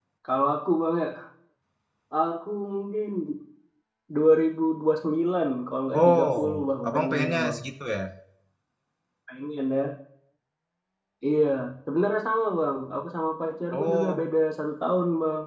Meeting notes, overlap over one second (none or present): present